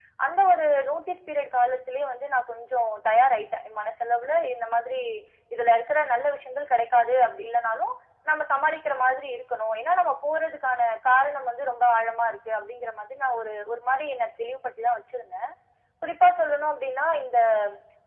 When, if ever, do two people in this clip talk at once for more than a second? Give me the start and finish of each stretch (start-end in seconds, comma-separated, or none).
none